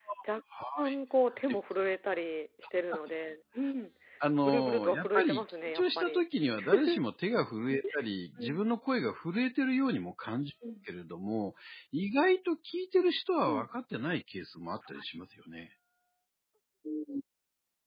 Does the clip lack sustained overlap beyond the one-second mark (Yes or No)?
No